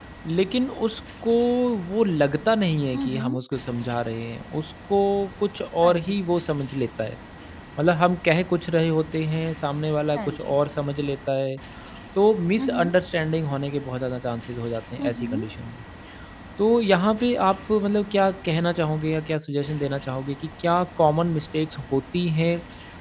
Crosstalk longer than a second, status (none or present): none